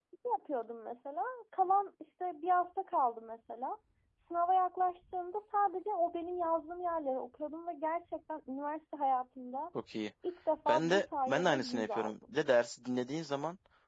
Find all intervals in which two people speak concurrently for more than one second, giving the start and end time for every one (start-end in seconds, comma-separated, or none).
10.7-12.4